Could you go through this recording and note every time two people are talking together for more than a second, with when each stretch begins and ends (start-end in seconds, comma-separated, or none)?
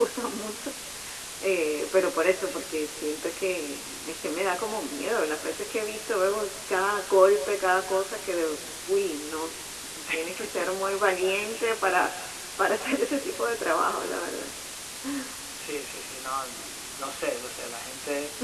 none